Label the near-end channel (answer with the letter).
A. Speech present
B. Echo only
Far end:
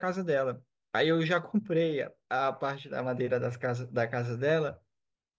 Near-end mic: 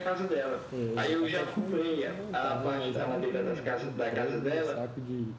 A